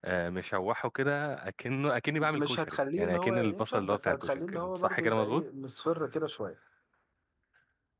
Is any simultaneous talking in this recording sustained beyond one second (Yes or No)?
Yes